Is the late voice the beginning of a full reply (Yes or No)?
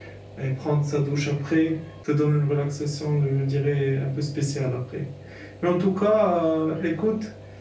No